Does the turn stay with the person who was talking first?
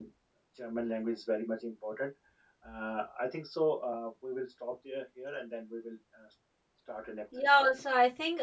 No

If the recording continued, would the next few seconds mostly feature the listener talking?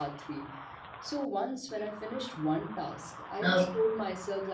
No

